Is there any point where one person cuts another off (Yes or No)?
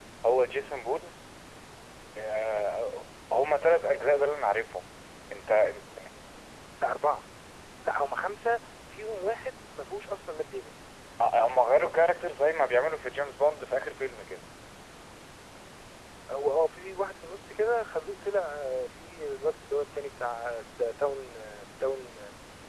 No